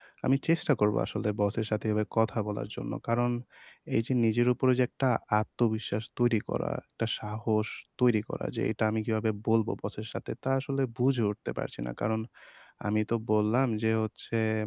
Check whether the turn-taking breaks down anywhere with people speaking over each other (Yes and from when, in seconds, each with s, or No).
No